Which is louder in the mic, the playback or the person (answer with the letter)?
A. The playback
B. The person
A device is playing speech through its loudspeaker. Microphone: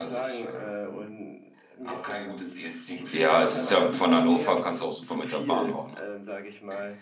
B